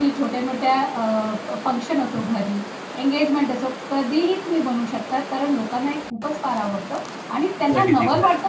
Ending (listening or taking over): listening